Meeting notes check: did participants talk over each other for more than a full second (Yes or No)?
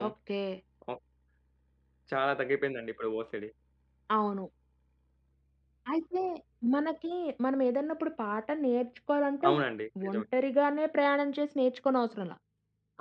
No